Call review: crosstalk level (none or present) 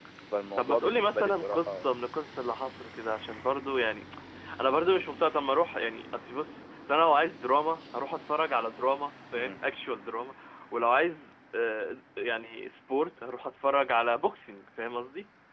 present